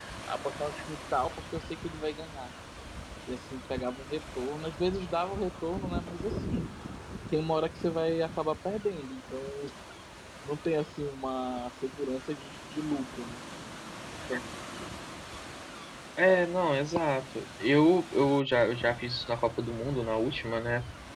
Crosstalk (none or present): none